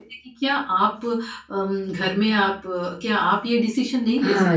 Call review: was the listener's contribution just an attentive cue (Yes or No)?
No